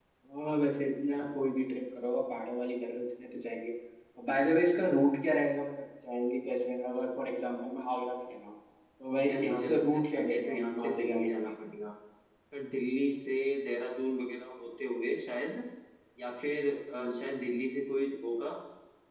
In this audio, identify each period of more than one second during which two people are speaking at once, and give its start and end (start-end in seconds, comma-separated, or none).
9.2-11.5